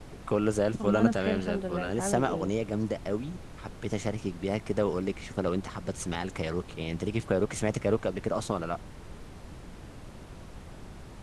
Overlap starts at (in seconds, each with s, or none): 0.8 s